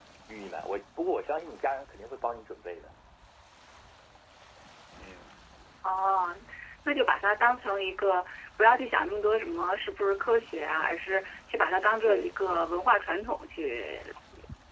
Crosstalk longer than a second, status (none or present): none